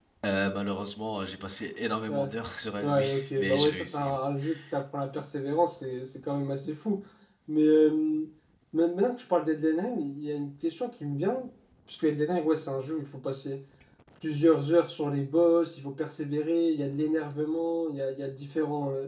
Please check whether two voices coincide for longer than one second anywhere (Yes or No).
Yes